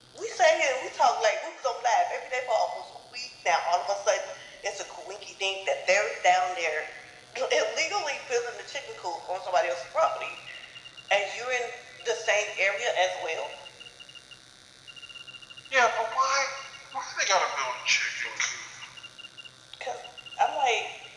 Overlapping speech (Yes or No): No